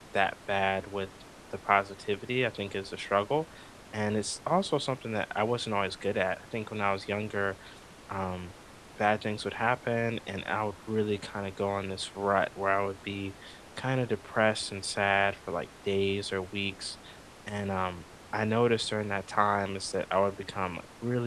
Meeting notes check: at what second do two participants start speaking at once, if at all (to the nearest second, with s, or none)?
none